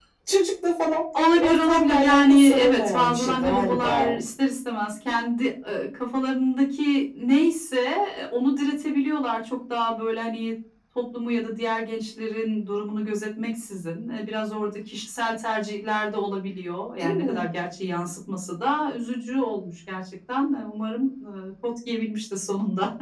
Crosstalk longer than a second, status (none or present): present